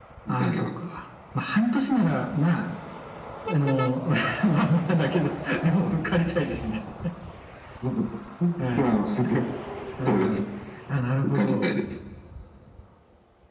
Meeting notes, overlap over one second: none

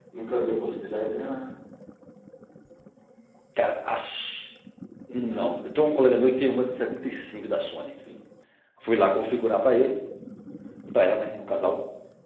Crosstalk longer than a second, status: none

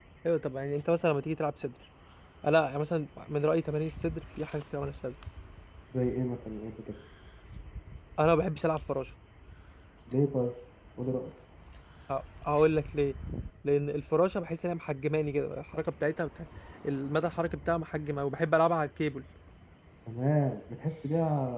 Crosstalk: none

